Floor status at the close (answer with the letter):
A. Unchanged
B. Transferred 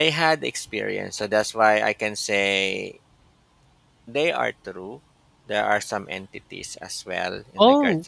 B